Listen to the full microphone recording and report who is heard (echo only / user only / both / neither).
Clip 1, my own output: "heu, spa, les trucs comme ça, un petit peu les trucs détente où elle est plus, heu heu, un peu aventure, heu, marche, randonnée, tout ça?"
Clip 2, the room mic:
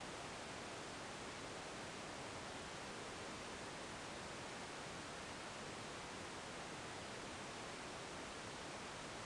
neither